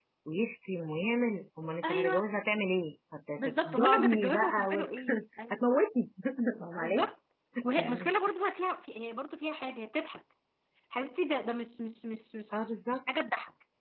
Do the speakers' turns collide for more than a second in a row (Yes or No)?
Yes